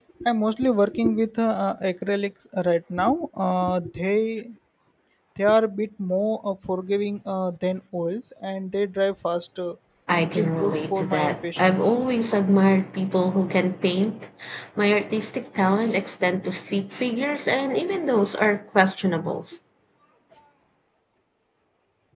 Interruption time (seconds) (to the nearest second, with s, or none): 10 s